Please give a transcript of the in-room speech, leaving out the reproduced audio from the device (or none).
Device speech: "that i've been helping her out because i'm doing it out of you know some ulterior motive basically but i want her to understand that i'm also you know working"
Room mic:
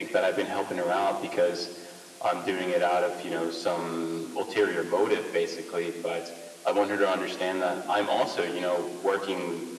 none